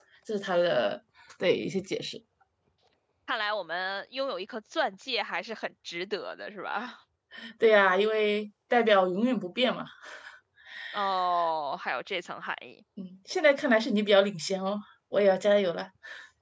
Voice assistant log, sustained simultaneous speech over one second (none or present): none